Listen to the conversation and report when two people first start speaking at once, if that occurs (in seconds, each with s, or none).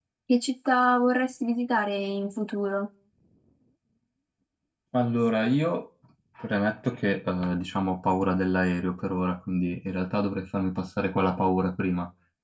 none